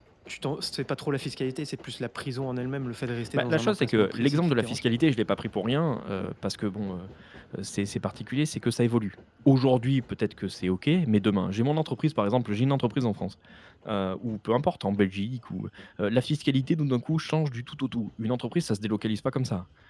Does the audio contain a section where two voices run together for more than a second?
Yes, from 3.4 s

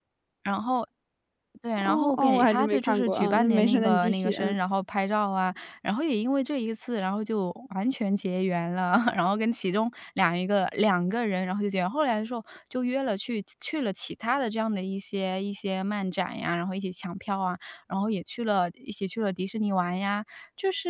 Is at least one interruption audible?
Yes, from 1.8 s

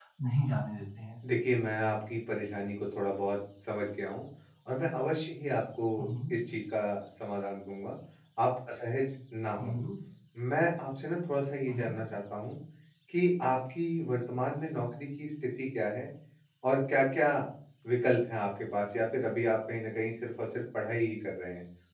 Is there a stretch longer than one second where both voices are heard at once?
No

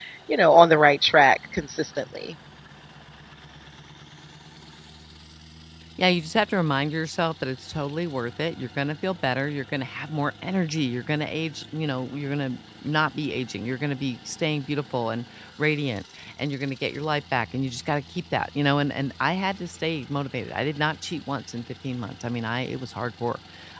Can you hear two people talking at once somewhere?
No

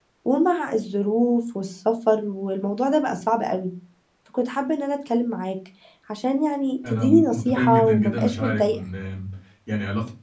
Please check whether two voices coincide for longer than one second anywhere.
Yes, from 6.9 s

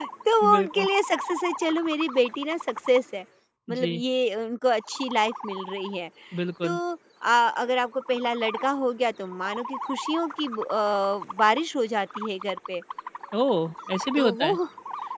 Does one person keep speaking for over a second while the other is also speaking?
No

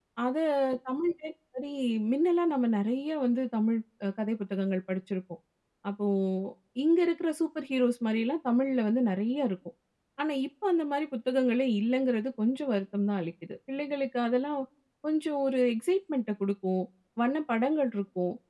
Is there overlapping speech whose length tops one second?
No

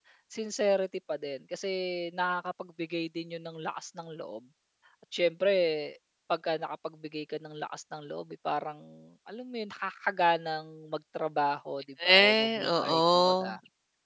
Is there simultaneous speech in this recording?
Yes, from 12.0 s

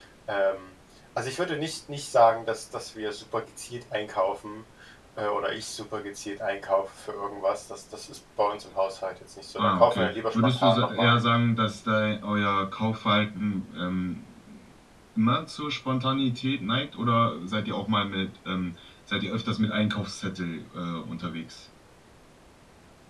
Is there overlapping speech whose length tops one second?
Yes, from 9.6 s

